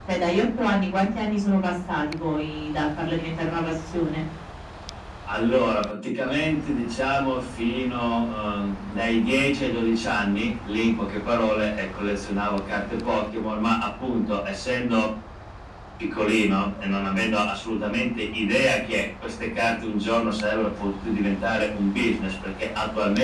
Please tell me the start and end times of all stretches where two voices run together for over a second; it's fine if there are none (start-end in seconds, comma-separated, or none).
none